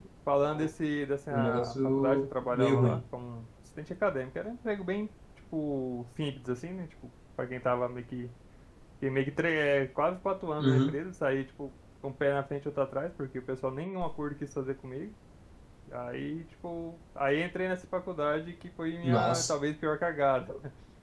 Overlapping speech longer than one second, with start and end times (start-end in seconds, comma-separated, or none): 1.3-3.0